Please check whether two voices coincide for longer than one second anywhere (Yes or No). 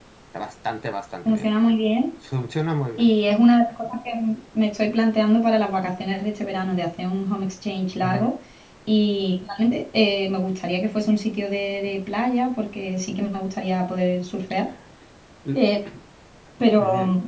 No